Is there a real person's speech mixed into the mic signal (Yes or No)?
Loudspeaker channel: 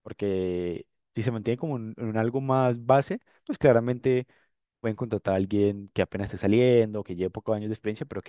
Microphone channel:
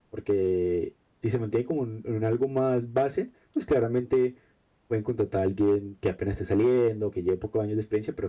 No